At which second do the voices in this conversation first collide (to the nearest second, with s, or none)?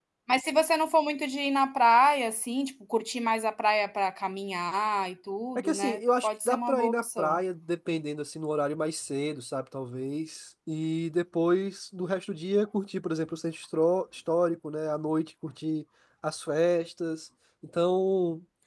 6 s